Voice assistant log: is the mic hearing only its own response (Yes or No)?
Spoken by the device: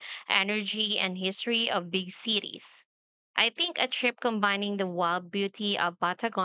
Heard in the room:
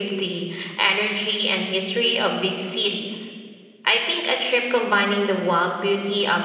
Yes